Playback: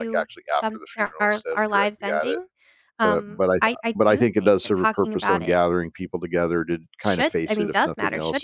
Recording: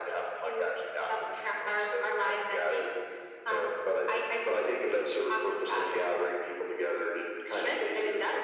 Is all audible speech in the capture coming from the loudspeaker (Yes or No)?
Yes